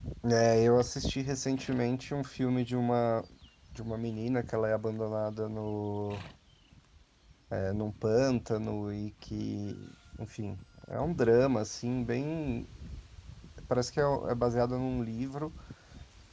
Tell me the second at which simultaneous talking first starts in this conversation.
none

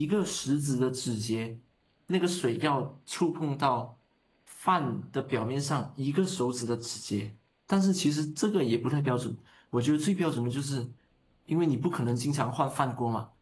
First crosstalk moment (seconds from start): none

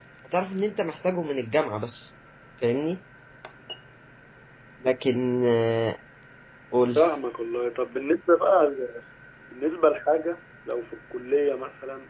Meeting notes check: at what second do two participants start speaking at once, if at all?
none

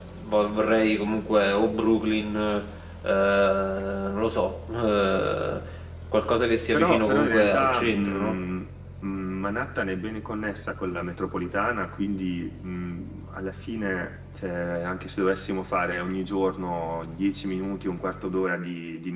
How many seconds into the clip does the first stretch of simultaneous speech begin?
7 s

